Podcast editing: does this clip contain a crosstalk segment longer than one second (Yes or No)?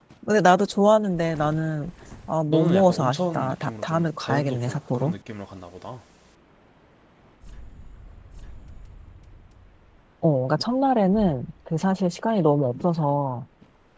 Yes